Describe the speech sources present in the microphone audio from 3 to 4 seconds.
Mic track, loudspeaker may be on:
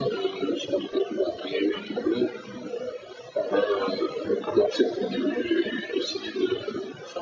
echo only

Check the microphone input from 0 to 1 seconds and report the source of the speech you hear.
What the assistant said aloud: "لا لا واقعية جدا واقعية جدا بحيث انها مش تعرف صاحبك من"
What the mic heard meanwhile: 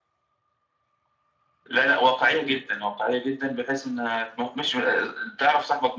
neither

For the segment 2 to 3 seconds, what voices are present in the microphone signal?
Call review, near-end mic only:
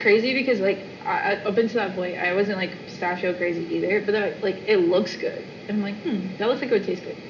echo only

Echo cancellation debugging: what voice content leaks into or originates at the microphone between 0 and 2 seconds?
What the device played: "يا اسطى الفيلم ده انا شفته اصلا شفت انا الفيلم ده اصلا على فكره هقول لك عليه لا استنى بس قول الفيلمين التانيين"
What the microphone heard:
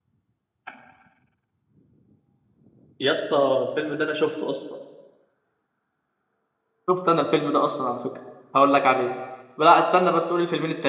neither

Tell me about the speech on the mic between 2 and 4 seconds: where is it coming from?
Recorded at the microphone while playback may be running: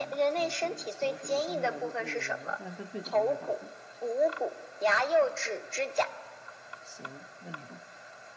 both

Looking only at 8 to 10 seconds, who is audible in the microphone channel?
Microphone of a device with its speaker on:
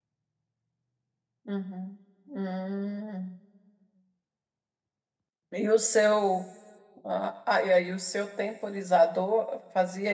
user only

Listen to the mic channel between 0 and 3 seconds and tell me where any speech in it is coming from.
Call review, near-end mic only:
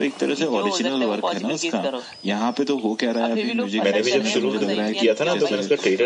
echo only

